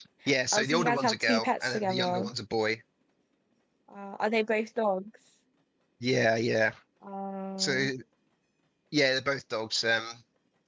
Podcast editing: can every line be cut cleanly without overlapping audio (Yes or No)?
No